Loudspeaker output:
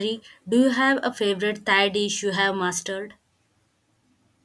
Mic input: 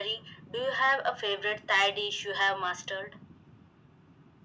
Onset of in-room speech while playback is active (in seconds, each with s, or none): none